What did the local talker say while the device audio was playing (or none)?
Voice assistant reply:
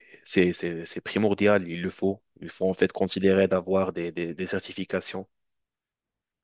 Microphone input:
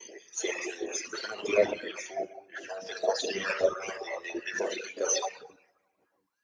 none